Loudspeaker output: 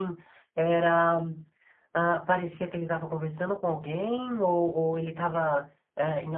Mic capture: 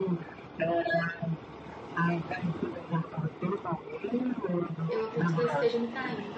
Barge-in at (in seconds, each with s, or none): 4.9 s